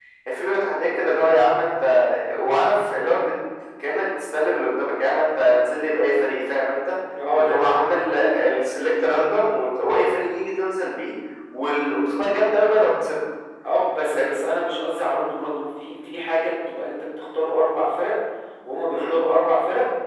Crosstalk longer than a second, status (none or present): none